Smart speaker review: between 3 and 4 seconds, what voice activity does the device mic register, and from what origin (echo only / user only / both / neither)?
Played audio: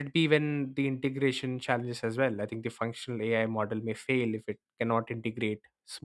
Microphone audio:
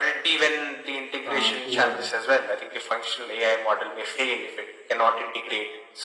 echo only